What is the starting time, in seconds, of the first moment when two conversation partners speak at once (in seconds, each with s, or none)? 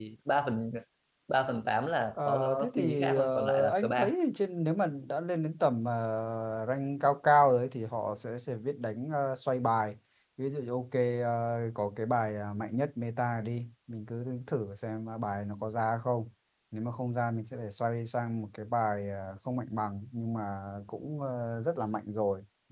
2.2 s